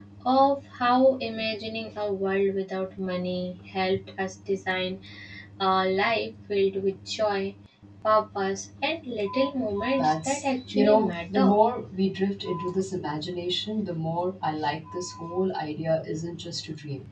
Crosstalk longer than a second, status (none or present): present